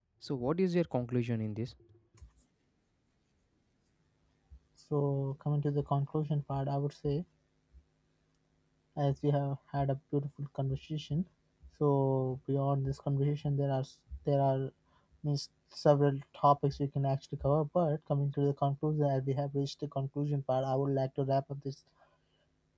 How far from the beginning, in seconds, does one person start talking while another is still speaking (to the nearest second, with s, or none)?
none